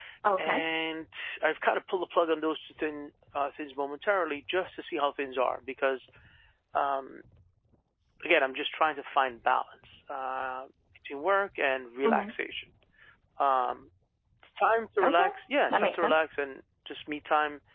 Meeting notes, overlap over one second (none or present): none